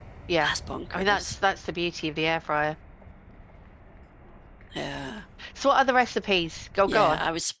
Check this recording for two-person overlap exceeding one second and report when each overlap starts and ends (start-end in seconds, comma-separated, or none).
none